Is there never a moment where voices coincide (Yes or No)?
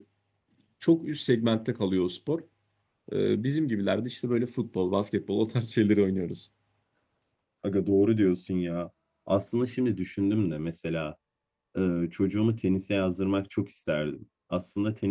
Yes